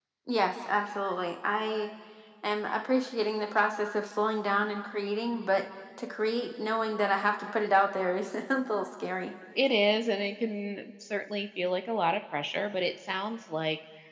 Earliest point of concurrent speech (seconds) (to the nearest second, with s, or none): none